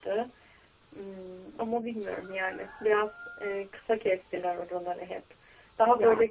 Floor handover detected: No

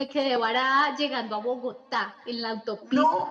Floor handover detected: No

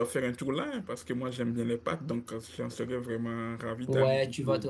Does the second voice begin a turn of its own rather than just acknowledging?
Yes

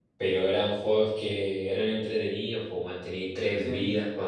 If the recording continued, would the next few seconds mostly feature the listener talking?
No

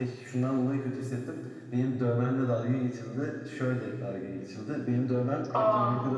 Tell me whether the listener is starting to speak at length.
No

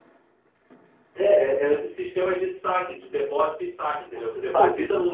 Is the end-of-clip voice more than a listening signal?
Yes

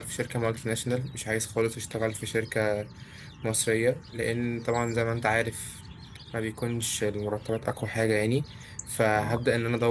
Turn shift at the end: No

